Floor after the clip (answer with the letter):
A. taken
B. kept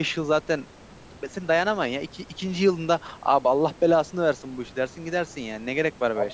A